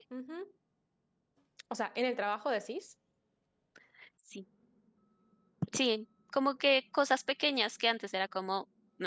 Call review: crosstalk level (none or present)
none